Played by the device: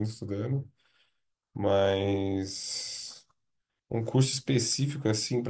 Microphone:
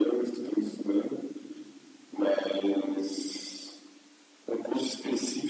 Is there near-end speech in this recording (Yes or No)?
No